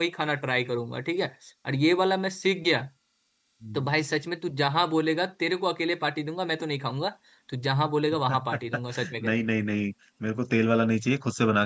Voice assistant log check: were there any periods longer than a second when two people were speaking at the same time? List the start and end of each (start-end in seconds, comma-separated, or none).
none